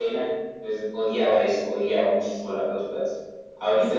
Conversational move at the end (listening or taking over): listening